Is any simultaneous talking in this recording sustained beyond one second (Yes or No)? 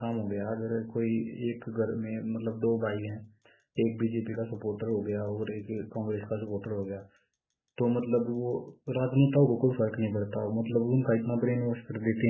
No